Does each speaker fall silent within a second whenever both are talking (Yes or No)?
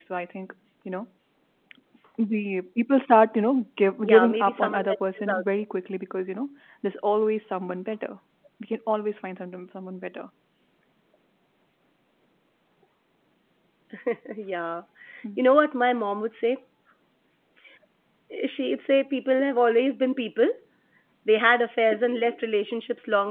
No